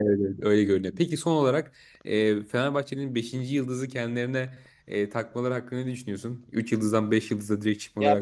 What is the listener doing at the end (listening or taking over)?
taking over